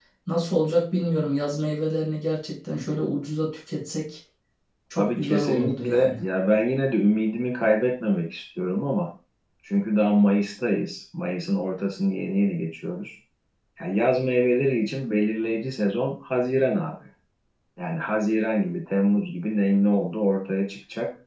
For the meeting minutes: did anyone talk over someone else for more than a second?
Yes, from 5.0 s

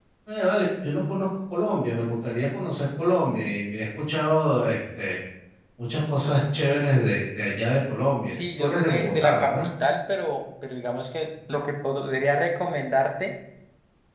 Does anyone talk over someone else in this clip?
Yes, from 8.3 s

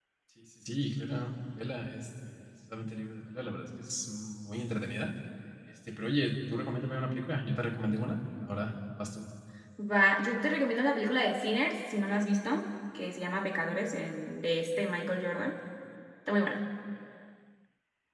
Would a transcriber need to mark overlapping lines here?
No

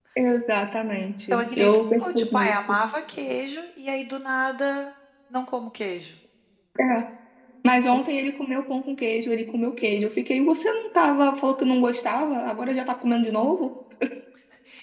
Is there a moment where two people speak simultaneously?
Yes, from 1.3 s

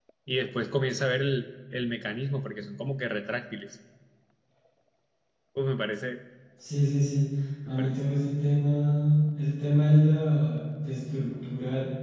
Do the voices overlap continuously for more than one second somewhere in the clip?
No

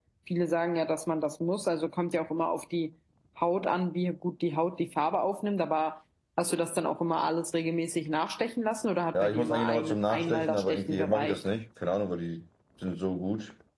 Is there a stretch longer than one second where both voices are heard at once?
Yes, from 9.1 s

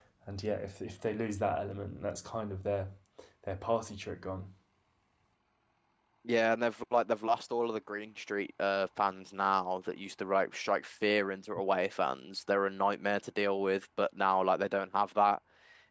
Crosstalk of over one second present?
No

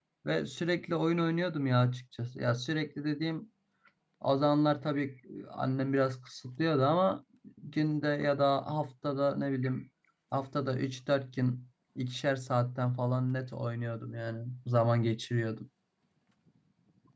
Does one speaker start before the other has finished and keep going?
No

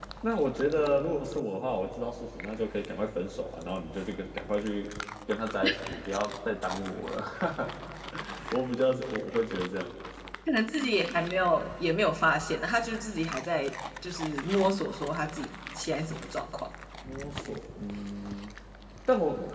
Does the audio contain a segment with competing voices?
No

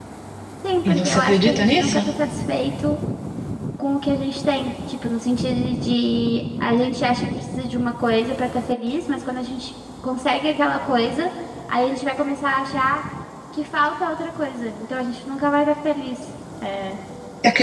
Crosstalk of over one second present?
Yes, from 0.8 s

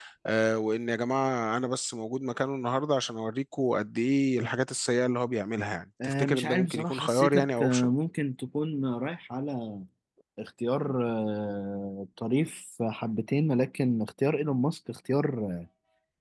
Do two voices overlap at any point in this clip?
Yes, from 6.0 s

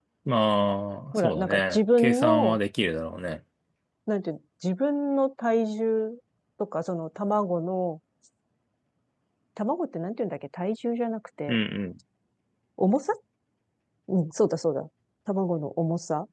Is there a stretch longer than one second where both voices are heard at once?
Yes, from 1.1 s

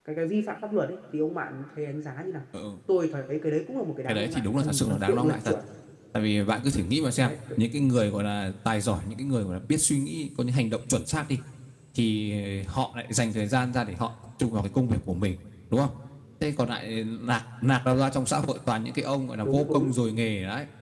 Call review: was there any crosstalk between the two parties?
Yes, from 4.1 s

